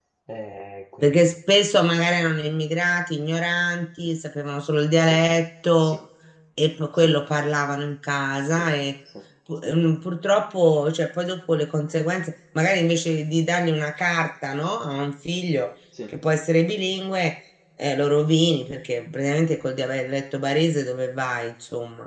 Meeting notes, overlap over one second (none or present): none